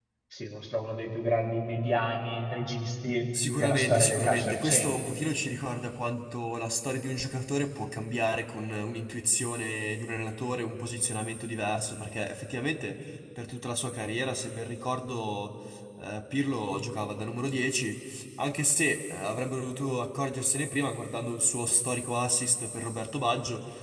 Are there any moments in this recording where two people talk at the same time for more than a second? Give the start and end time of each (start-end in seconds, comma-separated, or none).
3.6-4.9